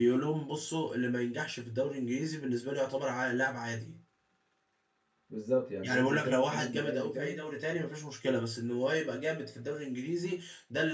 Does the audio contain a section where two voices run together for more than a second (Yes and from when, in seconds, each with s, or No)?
Yes, from 5.8 s